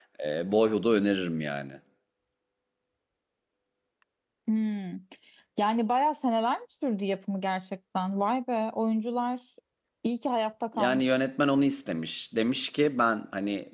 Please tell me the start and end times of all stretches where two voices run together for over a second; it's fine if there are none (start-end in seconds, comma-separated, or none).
none